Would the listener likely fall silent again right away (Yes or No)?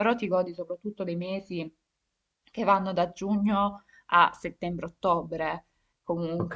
No